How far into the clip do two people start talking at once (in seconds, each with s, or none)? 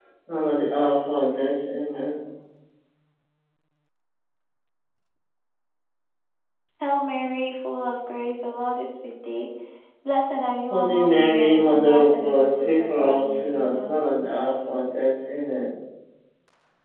10.7 s